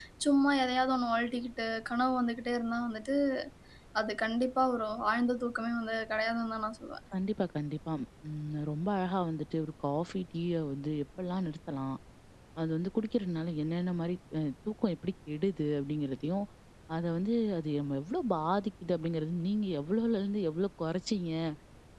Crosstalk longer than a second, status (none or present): none